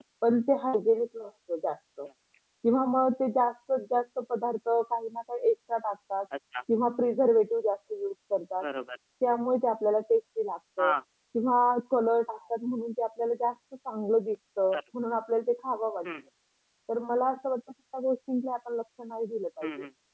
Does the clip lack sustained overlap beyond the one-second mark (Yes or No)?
Yes